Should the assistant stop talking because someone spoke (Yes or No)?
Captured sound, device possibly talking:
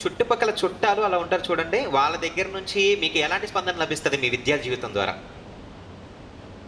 Yes